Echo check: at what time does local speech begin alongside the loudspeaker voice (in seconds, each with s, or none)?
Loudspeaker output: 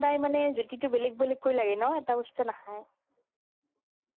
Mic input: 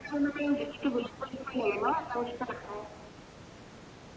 none